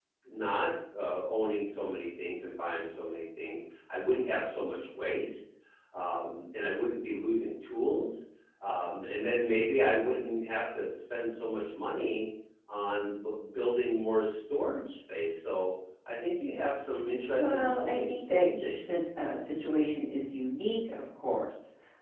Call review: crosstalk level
present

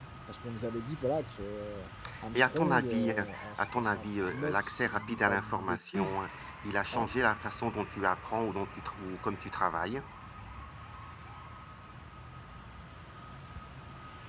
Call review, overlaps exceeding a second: present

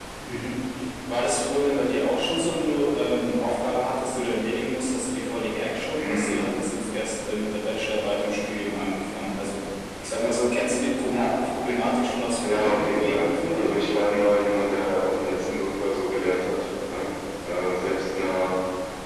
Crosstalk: present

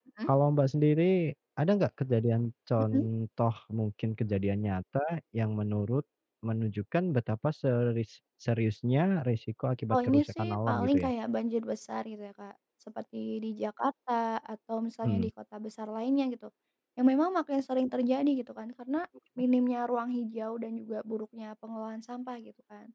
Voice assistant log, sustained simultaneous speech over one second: present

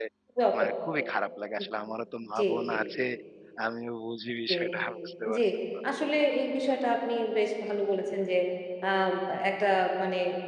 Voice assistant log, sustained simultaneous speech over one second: none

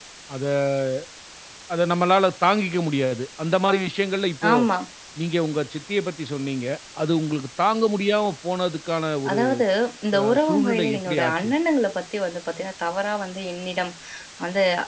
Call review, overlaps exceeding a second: present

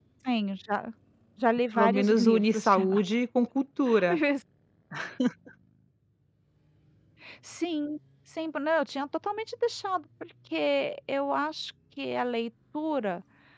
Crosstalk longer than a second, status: present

